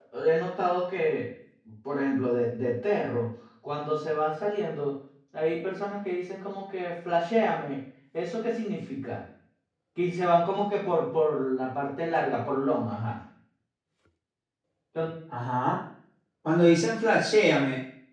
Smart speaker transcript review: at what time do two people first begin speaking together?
none

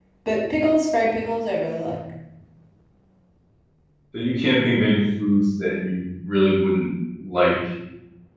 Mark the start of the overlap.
none

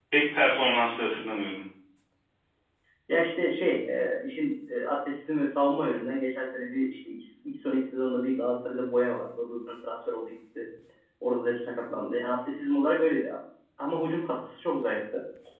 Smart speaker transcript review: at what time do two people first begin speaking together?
none

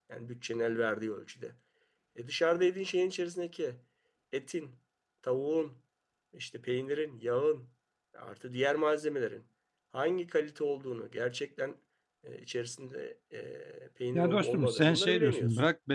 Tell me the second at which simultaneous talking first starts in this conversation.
14.1 s

